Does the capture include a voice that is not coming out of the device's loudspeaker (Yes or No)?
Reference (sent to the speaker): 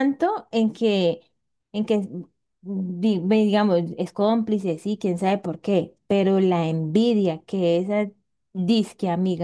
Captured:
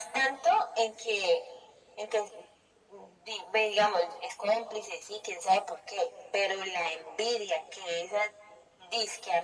No